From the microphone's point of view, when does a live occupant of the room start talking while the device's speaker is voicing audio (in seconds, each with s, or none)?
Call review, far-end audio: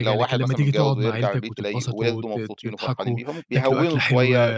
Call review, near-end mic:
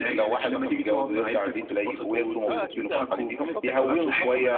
2.2 s